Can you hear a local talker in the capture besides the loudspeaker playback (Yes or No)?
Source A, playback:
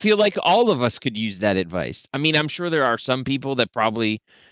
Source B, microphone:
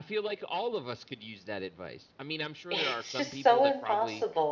Yes